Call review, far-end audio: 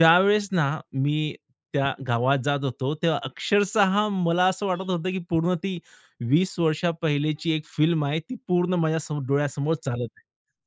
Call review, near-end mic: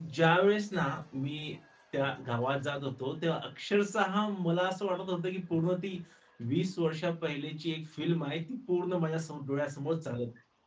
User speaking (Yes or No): No